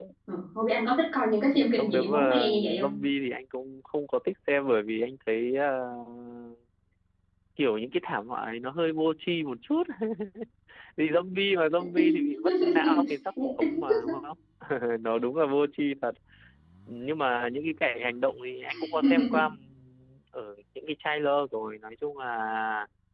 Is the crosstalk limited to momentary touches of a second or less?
No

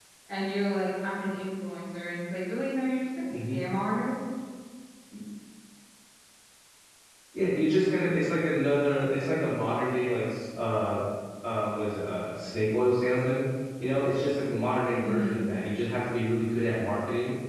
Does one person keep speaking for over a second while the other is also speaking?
No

